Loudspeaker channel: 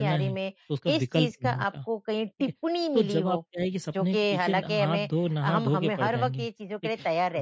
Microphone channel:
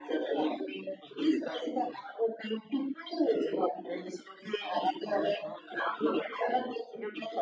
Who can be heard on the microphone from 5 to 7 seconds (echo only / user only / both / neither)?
echo only